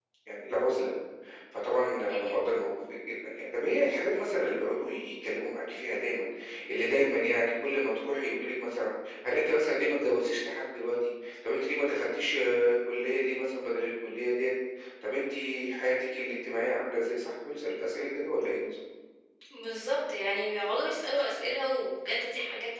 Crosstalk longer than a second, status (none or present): none